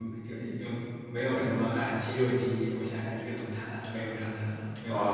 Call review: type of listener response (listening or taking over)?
taking over